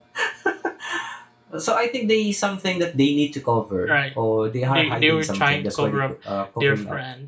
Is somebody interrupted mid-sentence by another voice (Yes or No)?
Yes